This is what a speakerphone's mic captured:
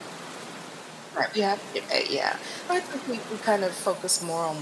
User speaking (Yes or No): Yes